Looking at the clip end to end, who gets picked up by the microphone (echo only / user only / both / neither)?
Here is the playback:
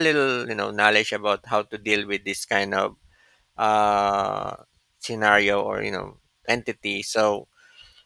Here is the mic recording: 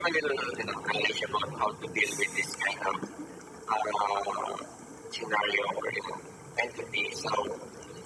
echo only